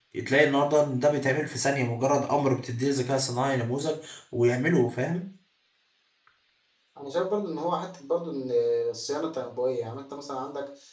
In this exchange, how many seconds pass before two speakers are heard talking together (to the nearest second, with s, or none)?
none